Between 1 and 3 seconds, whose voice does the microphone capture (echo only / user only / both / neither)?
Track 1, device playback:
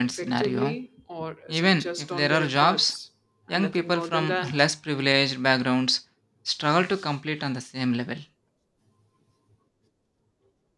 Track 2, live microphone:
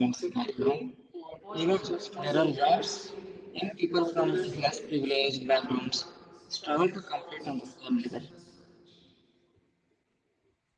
both